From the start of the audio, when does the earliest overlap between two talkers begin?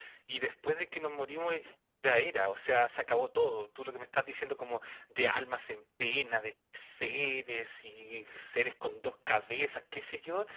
none

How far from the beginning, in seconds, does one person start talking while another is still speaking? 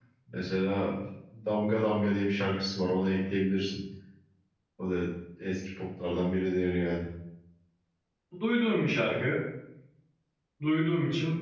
none

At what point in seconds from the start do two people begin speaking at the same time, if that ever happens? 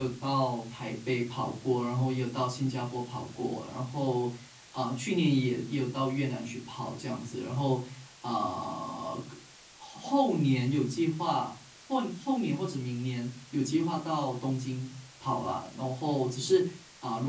none

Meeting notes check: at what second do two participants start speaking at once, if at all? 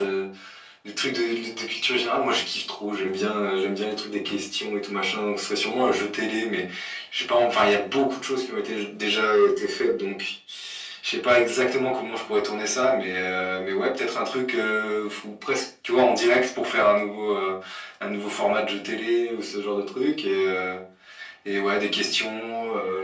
none

